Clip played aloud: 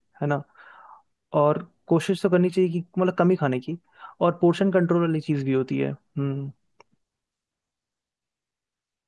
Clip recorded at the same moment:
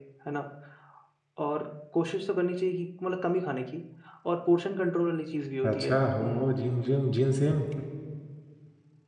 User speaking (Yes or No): Yes